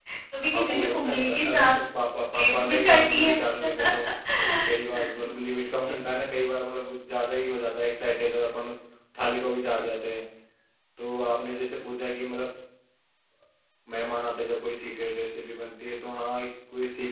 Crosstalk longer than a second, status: present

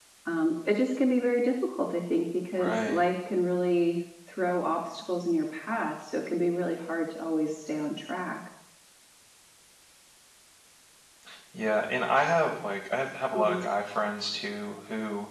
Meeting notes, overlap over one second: none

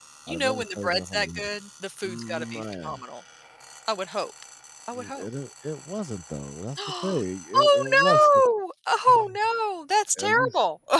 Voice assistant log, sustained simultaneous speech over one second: present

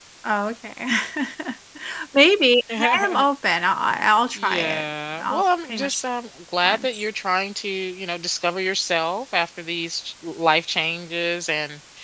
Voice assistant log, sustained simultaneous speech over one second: present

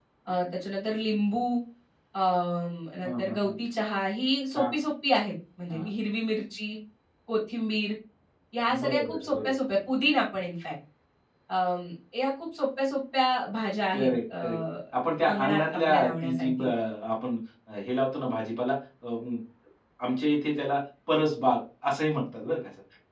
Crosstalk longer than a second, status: present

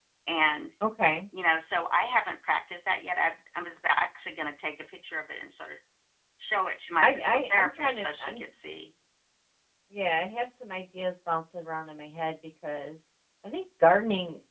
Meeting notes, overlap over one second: present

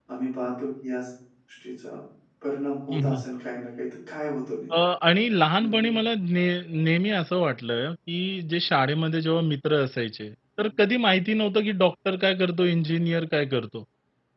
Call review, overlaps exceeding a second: none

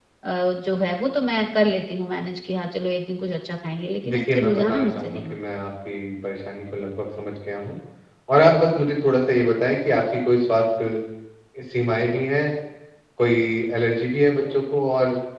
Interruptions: present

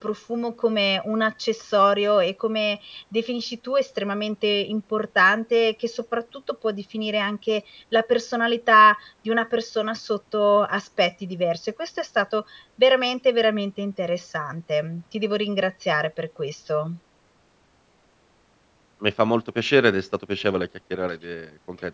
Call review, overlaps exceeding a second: none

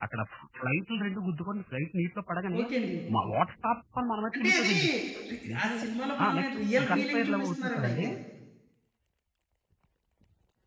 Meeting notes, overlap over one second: present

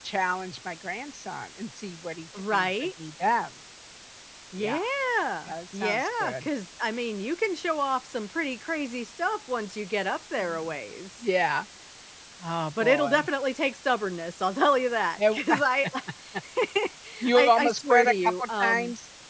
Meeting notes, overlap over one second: present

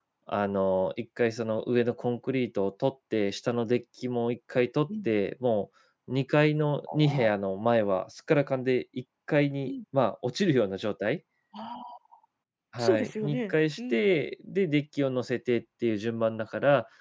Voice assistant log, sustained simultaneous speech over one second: present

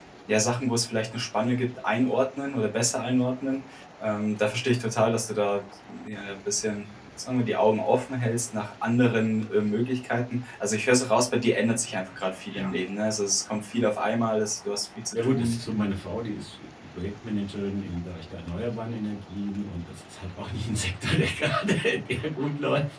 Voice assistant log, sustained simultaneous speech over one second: none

